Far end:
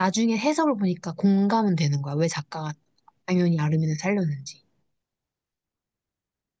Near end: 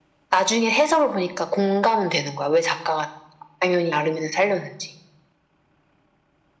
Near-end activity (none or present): none